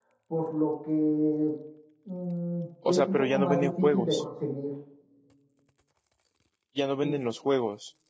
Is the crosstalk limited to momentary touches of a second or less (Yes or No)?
No